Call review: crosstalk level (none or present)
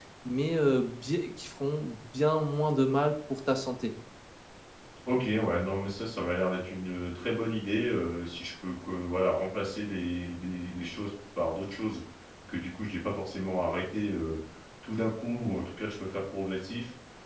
none